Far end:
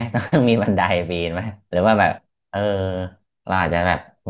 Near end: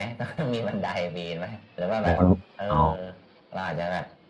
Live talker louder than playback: Yes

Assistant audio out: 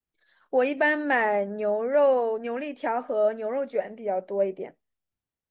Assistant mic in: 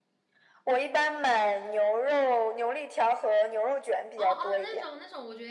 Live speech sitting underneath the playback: Yes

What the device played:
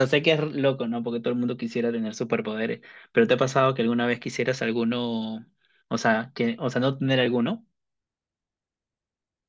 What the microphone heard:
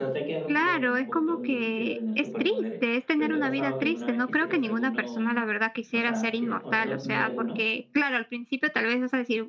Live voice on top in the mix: Yes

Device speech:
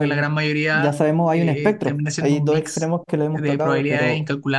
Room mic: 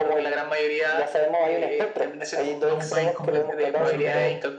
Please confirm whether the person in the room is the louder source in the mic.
No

